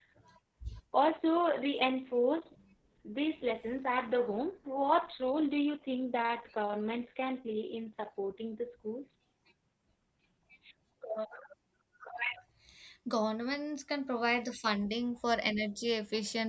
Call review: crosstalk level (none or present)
none